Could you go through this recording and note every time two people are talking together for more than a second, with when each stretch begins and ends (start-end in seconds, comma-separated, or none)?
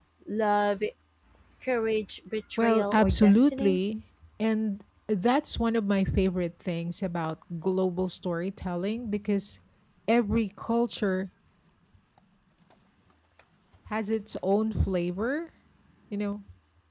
2.6-3.8